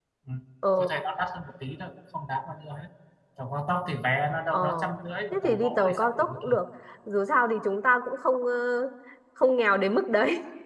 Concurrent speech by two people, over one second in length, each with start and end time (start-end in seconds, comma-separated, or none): 5.3-6.6